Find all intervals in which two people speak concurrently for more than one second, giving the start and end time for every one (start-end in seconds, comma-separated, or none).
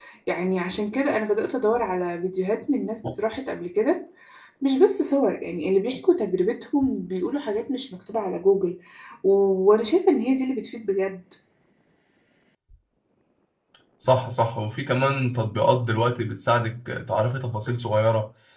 none